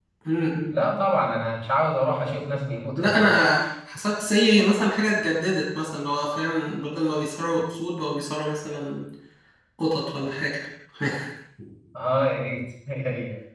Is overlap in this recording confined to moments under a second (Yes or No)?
Yes